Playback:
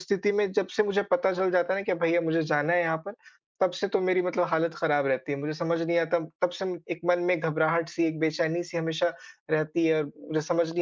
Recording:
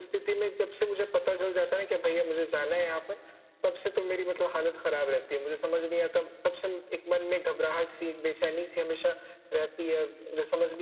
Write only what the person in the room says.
none

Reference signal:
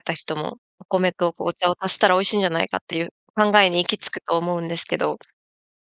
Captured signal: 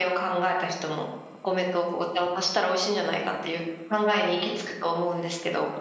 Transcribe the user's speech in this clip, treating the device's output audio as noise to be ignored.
none

